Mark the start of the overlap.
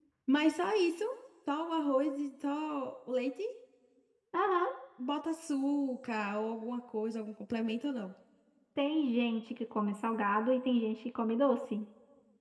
none

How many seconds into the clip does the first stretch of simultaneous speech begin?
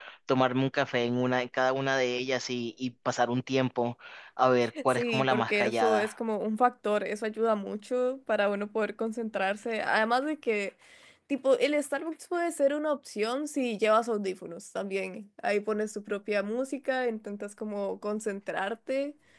4.9 s

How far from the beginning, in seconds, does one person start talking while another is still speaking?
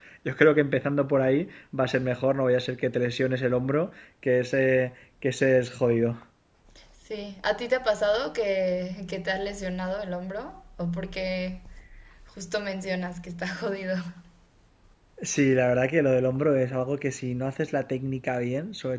none

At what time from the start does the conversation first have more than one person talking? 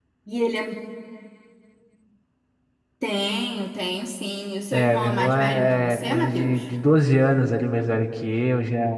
4.7 s

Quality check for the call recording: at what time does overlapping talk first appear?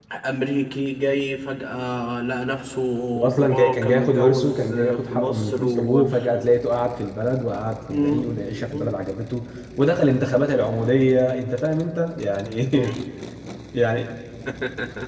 3.3 s

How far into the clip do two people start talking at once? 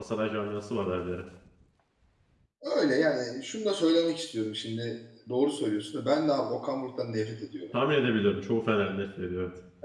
none

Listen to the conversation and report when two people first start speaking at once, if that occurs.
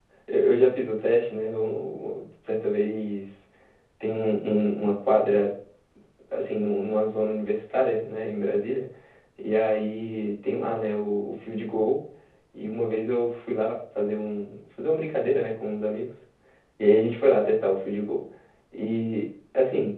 none

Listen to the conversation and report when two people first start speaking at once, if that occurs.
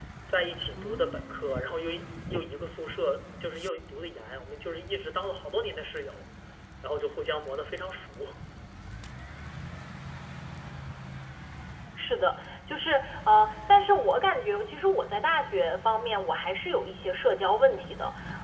none

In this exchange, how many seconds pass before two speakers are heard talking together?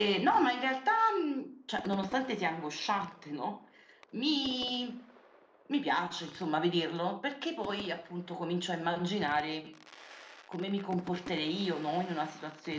none

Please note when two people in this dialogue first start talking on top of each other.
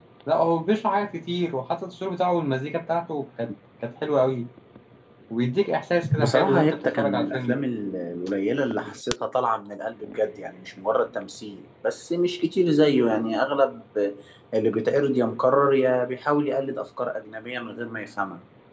6.2 s

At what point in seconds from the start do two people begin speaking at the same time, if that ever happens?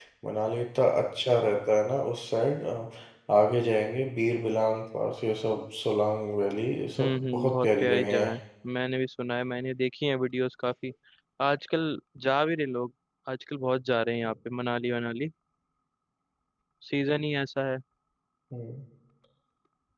7.0 s

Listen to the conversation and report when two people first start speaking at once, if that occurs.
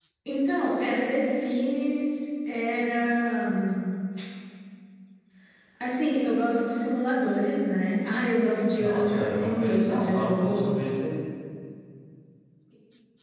8.8 s

